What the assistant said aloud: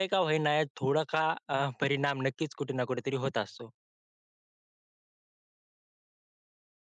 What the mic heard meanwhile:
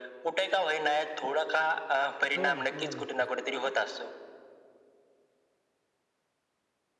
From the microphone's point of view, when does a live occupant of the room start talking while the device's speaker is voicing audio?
2.4 s

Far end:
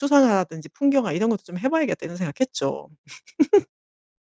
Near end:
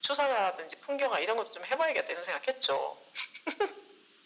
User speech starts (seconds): none

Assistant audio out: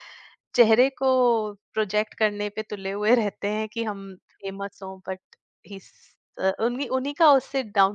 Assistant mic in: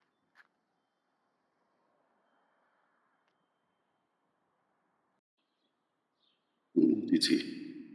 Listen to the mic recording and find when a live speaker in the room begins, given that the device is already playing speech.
6.8 s

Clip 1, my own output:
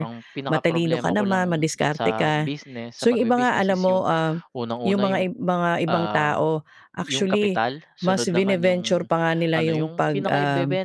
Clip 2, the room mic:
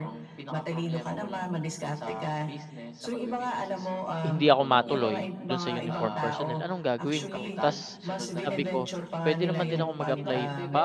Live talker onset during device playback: 4.2 s

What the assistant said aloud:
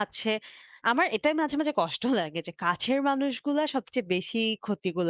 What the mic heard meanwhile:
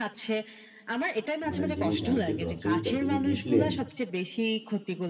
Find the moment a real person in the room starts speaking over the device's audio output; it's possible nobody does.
1.5 s

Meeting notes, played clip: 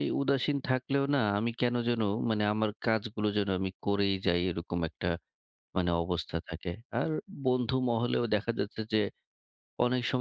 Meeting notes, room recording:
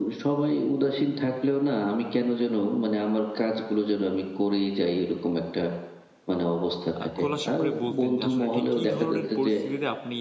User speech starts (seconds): 7.0 s

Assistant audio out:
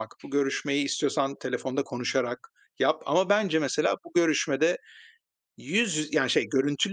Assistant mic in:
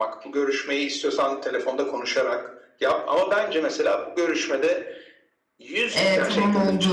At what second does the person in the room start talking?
6.0 s

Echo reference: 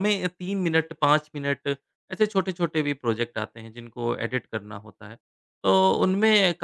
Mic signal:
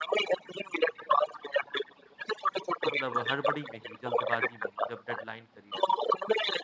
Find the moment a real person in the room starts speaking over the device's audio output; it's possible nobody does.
2.9 s

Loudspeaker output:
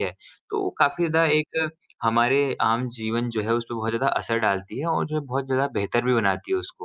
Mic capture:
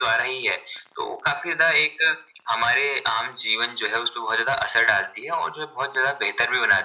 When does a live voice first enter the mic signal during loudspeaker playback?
none

